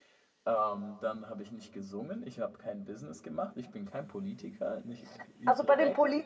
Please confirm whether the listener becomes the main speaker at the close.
Yes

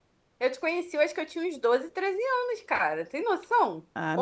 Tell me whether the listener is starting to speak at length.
Yes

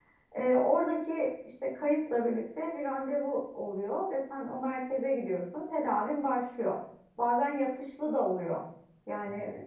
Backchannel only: Yes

